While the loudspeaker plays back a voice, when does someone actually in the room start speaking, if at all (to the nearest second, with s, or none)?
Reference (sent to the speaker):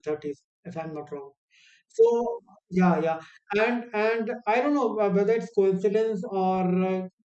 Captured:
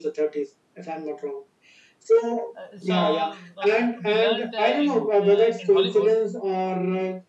3 s